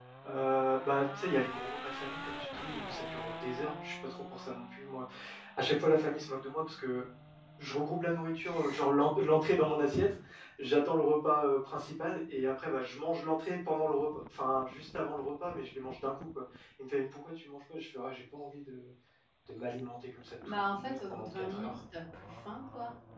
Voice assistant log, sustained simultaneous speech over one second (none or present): present